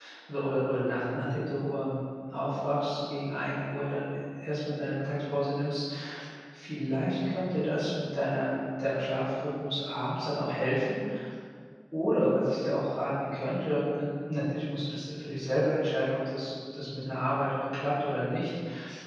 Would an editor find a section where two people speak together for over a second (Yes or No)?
No